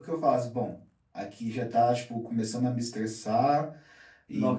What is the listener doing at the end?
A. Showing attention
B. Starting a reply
B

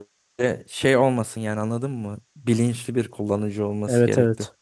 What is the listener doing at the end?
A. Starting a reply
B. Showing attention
A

